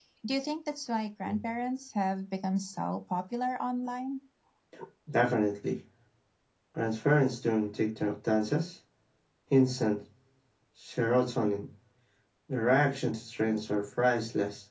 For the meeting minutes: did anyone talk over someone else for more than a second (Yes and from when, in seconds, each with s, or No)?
No